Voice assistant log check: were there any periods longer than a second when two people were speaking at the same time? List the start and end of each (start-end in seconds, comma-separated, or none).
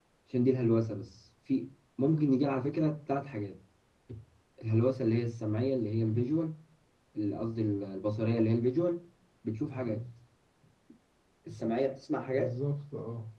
none